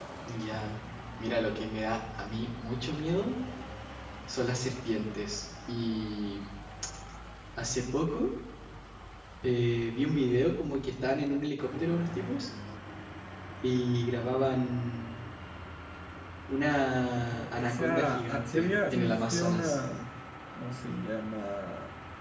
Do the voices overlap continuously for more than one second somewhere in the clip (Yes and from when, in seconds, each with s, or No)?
Yes, from 17.2 s